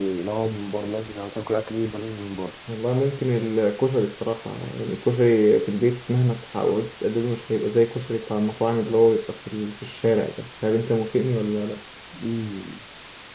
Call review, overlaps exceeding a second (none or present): none